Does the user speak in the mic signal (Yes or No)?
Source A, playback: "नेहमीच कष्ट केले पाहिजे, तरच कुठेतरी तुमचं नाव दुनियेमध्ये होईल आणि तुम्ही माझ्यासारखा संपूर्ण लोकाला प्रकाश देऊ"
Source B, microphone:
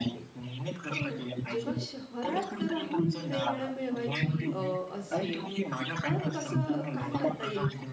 Yes